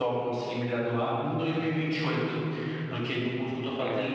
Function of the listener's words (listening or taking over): listening